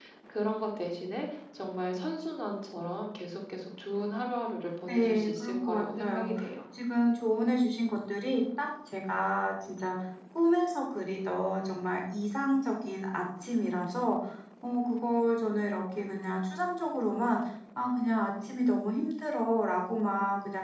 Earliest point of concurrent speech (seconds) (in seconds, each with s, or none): 4.9 s